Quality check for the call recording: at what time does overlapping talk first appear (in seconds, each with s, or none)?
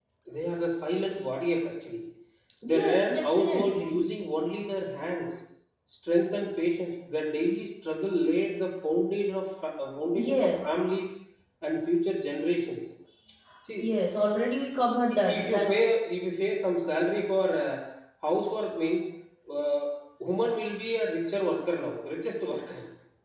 2.6 s